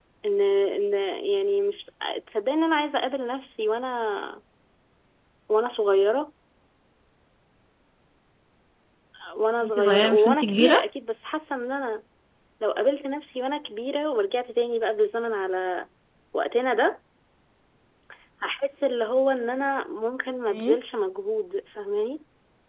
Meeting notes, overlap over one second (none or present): present